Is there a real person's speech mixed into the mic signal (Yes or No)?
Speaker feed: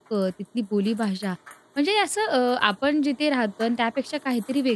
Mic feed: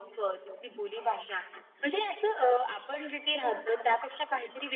No